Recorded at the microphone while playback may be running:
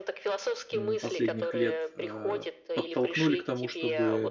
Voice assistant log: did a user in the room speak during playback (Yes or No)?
Yes